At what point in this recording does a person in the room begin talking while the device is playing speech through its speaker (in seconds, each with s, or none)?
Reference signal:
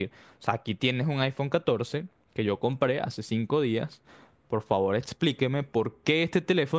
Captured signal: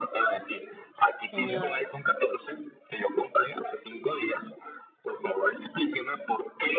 1.3 s